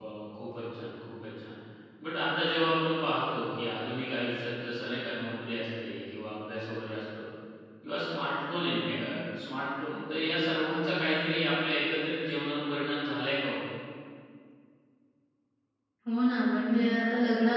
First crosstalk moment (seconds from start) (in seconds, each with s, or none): none